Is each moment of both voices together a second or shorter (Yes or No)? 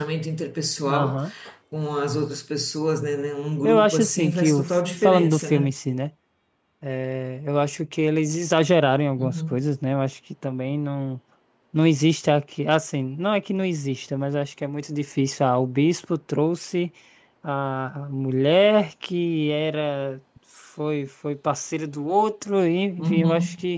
No